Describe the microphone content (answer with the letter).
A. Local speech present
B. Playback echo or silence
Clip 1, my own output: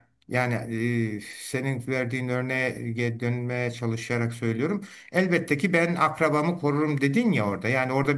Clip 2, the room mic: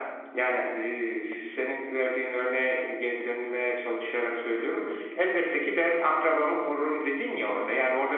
B